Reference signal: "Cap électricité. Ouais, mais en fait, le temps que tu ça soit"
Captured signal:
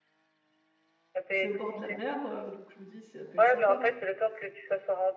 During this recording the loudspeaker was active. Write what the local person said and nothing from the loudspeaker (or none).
C'est au bord de la mer, heu, donc je me dis: «Ça peut être sympa».